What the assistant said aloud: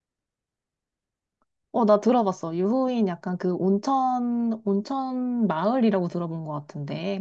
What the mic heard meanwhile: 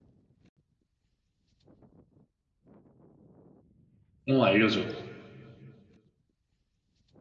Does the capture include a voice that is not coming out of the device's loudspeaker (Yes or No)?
Yes